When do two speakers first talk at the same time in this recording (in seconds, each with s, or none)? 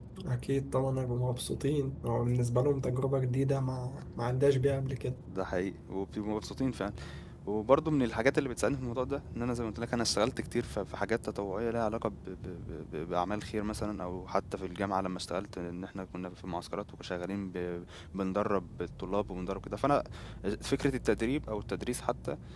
none